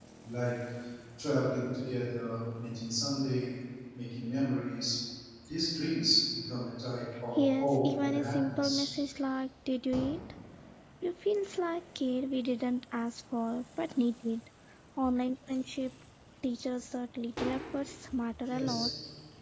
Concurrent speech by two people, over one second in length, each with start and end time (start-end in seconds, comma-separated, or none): 7.6-8.9